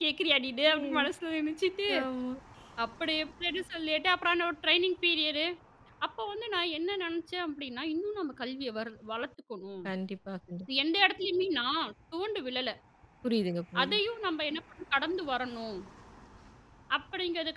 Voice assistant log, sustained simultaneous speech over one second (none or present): none